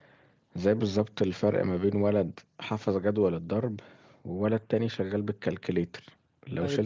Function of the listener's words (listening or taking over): listening